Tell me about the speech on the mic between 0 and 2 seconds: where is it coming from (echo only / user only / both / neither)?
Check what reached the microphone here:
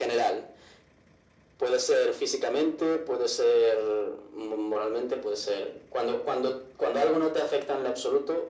echo only